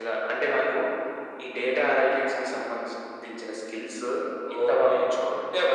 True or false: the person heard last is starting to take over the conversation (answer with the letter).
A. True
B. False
A